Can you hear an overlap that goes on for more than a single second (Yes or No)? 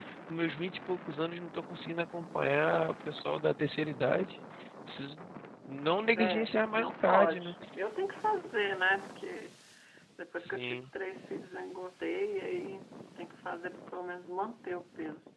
Yes